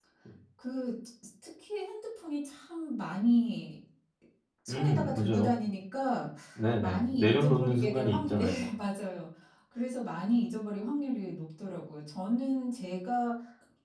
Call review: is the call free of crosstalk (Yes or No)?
No